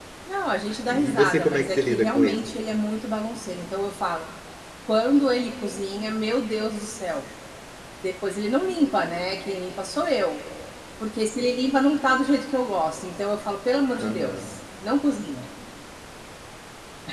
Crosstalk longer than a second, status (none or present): present